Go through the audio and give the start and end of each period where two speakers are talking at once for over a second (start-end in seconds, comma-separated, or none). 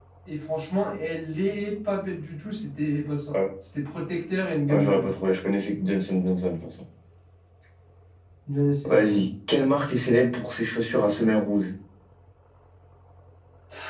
none